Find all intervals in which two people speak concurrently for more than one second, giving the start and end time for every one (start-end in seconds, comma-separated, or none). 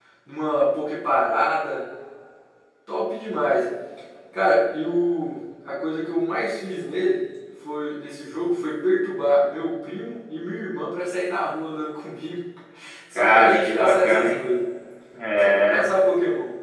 13.2-14.4